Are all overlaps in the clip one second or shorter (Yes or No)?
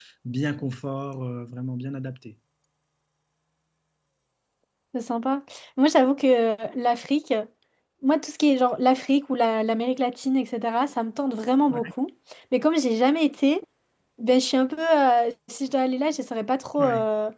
Yes